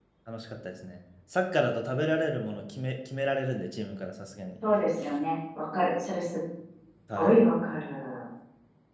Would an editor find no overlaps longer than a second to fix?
Yes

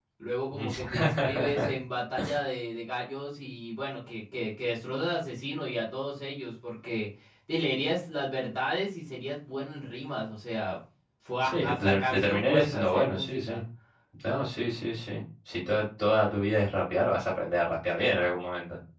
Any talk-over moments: Yes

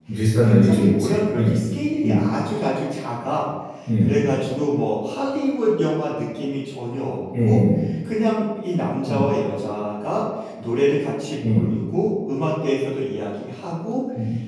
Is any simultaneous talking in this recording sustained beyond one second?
Yes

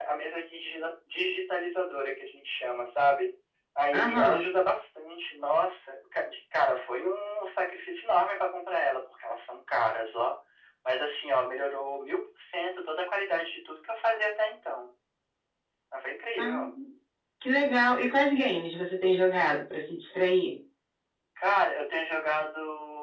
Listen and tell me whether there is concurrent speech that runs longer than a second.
No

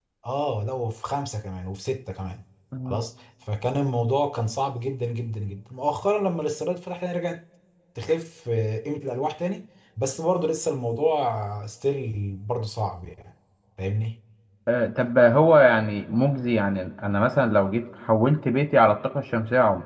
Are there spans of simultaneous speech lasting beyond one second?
No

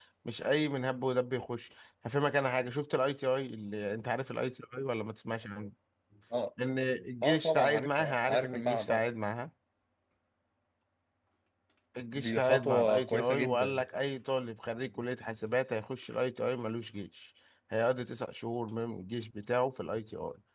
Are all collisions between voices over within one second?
No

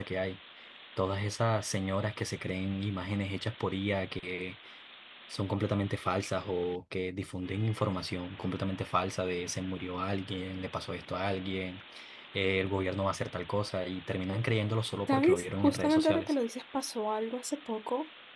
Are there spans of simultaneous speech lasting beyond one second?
Yes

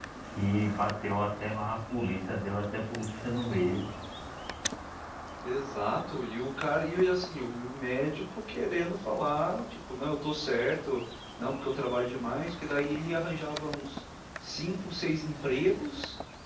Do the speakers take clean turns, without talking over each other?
Yes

